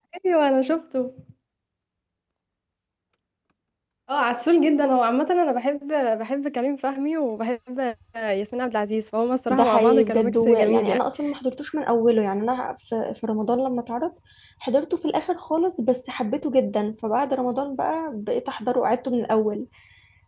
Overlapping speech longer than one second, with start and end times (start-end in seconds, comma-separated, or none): 9.5-11.1